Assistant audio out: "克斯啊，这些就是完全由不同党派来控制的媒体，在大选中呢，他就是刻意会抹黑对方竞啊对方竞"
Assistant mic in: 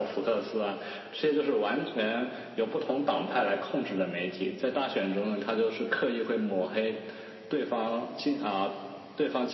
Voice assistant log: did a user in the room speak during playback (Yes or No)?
No